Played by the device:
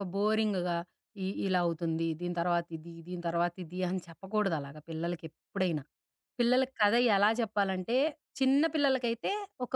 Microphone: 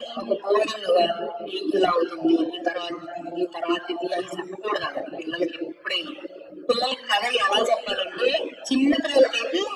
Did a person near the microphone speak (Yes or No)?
No